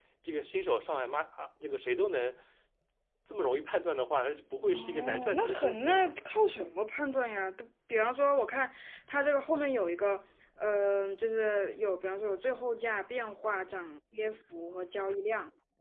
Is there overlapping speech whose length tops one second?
Yes, from 4.6 s

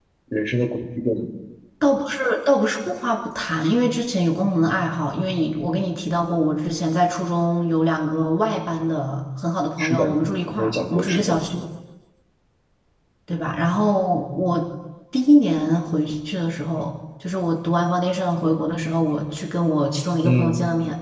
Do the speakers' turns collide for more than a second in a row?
Yes, from 9.8 s

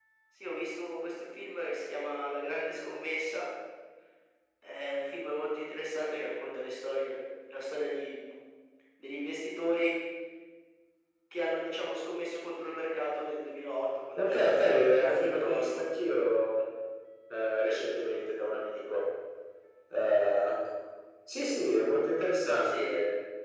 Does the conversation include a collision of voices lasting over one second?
Yes, from 14.2 s

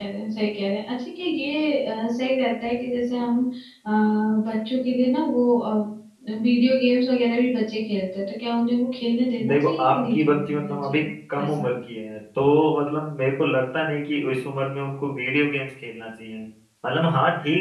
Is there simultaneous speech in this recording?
Yes, from 9.4 s

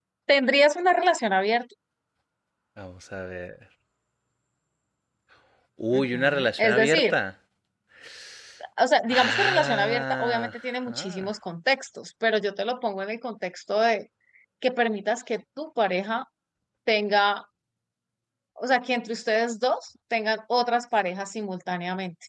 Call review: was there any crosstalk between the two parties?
Yes, from 5.9 s

